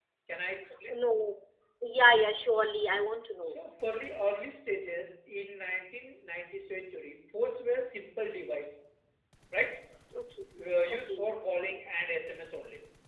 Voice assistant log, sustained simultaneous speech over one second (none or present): none